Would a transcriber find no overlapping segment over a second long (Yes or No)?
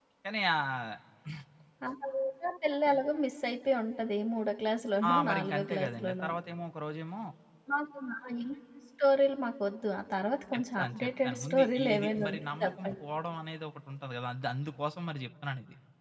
No